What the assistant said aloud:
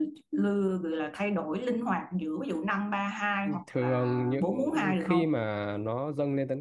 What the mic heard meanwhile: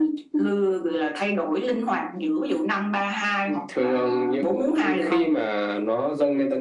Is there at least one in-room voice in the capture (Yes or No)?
No